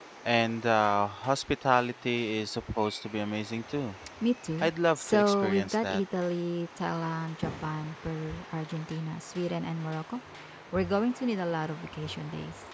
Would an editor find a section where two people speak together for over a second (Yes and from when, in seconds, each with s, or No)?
Yes, from 4.6 s